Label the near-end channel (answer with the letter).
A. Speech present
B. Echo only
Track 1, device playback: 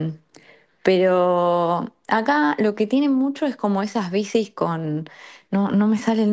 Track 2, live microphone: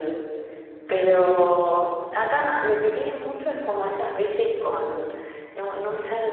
B